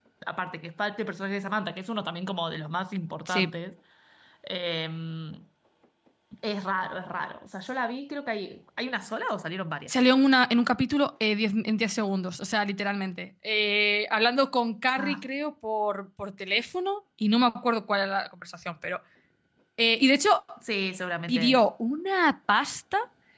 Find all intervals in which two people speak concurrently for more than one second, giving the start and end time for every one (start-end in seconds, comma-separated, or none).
none